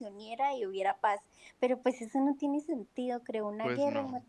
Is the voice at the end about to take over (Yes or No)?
No